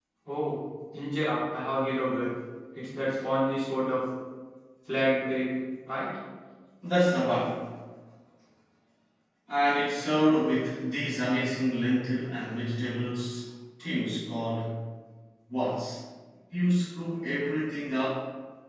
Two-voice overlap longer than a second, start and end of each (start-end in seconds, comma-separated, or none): none